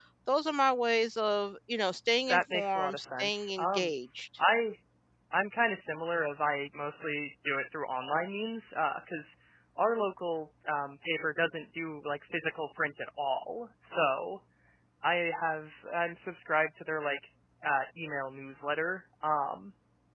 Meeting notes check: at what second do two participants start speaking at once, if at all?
2.3 s

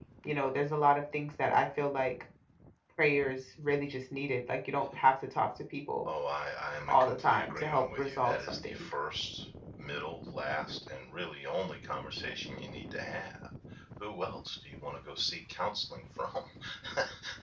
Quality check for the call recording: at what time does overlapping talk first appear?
6.9 s

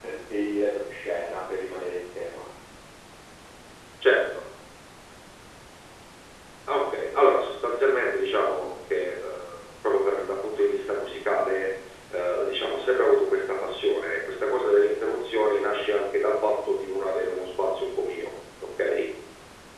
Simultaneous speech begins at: none

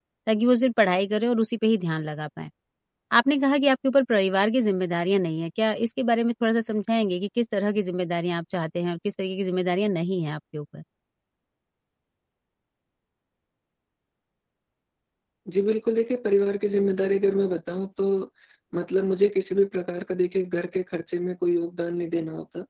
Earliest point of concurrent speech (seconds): none

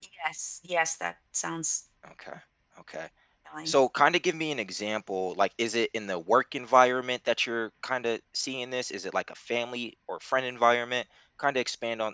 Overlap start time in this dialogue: none

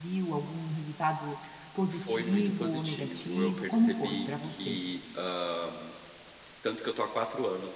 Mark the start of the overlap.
1.9 s

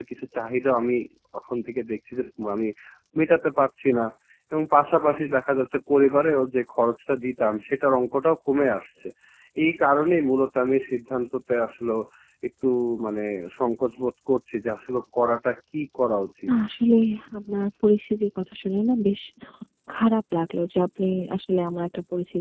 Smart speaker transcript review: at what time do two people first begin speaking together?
none

